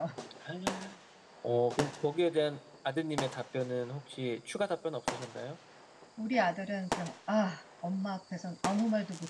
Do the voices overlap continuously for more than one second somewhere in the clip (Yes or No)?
No